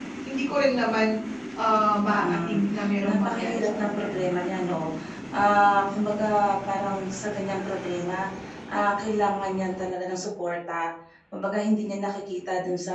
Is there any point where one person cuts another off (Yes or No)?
Yes